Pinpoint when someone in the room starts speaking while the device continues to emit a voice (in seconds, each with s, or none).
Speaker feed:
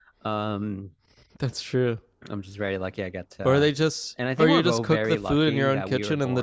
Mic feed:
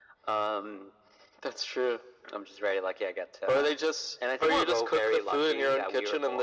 none